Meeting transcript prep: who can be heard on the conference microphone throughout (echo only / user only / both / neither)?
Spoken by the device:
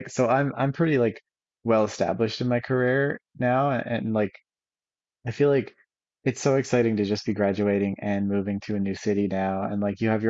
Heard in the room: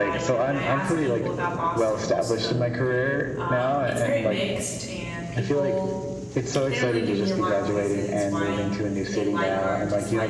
both